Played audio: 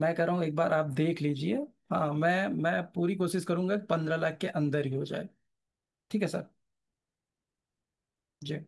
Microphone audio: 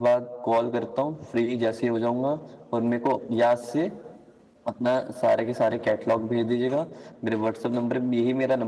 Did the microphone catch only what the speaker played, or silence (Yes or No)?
No